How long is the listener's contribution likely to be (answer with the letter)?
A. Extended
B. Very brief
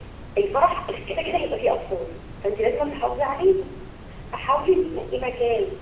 B